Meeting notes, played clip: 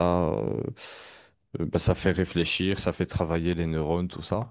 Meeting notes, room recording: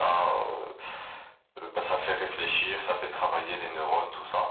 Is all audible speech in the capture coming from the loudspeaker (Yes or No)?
Yes